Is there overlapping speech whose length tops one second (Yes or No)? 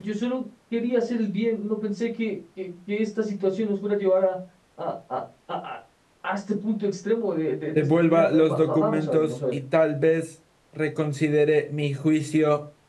Yes